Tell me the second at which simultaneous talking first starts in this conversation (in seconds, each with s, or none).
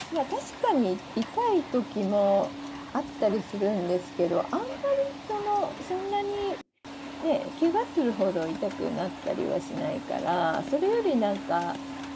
none